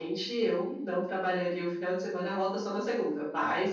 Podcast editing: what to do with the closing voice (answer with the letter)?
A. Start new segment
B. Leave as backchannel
B